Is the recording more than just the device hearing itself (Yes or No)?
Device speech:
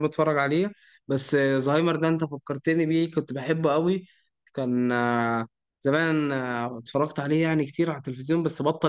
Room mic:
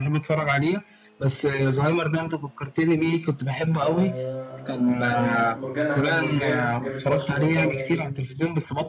Yes